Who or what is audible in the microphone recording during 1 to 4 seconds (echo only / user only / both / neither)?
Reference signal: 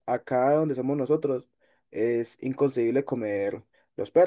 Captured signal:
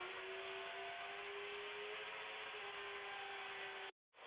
neither